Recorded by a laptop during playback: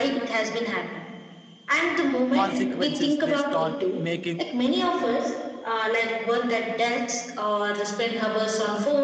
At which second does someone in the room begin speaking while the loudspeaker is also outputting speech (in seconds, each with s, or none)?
2.3 s